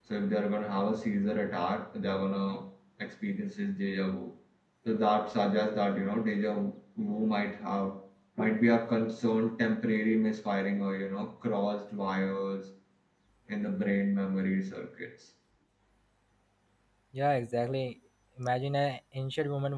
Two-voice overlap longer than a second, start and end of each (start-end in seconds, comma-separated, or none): none